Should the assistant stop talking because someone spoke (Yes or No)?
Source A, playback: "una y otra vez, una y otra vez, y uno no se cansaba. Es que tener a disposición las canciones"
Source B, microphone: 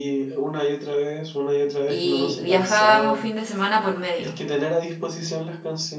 Yes